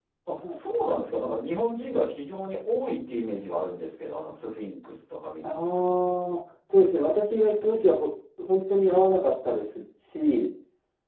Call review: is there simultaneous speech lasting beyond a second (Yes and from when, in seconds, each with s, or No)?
No